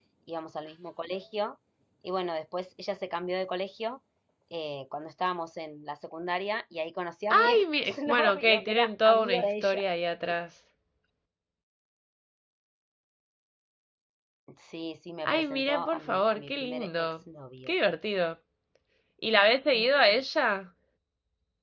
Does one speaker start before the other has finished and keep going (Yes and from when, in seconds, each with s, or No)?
Yes, from 7.3 s